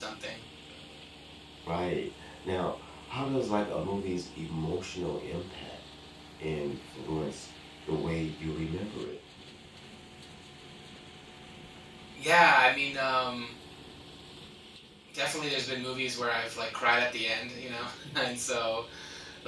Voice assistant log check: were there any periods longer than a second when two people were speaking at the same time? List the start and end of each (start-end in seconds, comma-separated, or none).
none